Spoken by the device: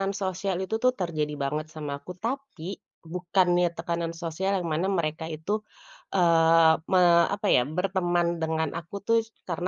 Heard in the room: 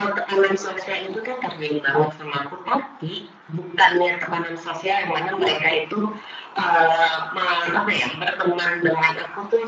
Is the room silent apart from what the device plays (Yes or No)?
Yes